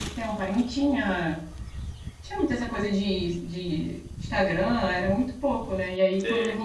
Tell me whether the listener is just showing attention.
Yes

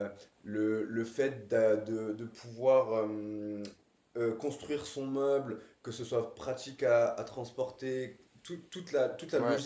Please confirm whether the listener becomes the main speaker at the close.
No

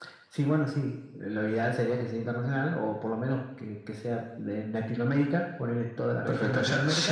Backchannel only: No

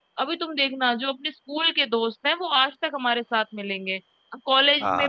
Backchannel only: Yes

